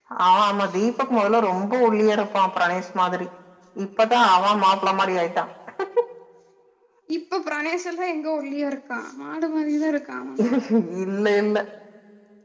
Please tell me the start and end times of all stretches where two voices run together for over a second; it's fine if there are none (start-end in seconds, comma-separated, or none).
none